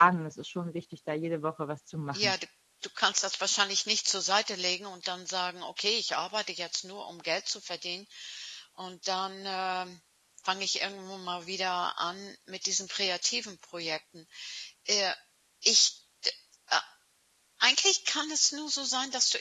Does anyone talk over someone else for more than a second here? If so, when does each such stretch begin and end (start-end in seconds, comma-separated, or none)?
none